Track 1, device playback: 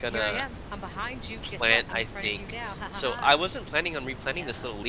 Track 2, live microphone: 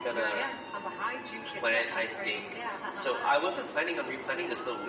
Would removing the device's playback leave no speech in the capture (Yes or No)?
Yes